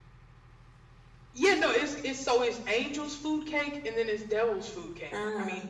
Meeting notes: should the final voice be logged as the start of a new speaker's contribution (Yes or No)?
No